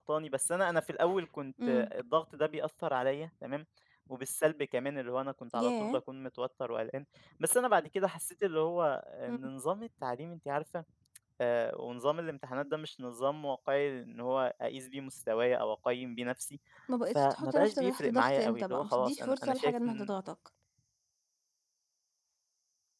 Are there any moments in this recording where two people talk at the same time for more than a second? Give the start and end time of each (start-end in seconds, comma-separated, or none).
17.1-20.1